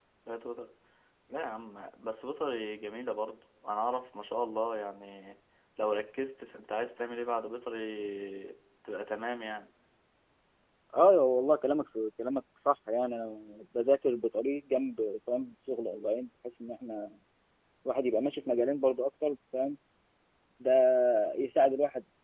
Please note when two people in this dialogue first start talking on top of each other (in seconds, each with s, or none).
none